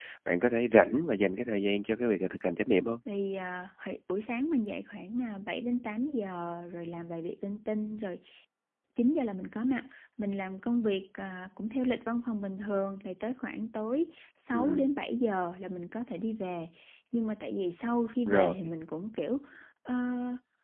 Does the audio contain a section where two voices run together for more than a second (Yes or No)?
No